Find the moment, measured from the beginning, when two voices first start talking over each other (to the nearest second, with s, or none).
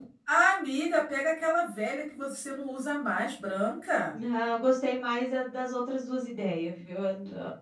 none